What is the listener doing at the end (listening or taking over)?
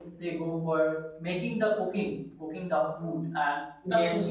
listening